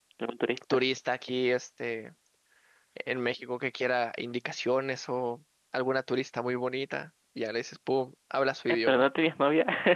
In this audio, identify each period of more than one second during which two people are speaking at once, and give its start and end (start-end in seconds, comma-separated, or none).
none